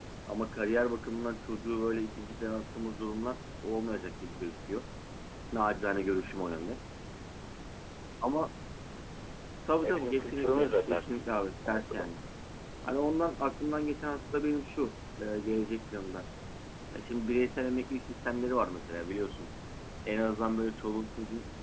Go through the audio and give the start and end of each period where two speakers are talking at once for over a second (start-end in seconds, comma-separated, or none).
9.8-11.3